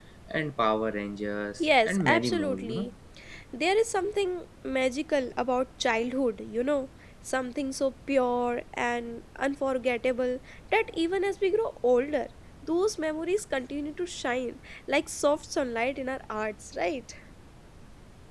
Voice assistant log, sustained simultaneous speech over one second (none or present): present